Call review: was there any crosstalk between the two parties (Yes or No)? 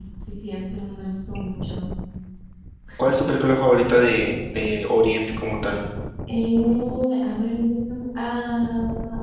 No